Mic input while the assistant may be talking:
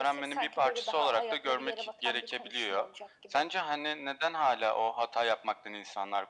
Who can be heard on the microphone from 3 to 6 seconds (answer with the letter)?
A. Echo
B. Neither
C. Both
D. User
A